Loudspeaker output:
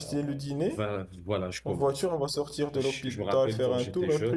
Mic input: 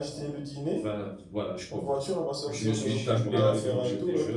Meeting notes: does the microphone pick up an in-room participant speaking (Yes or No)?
Yes